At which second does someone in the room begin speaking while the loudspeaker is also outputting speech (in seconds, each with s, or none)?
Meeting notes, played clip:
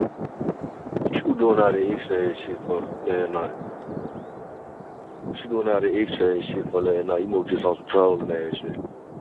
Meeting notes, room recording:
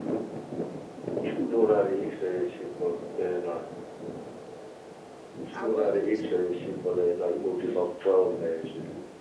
5.5 s